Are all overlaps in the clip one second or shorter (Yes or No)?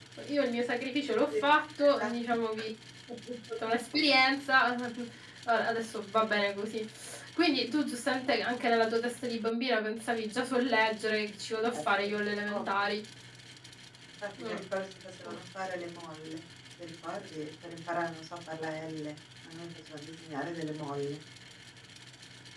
Yes